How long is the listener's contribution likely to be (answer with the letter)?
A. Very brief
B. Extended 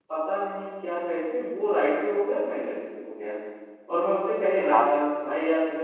A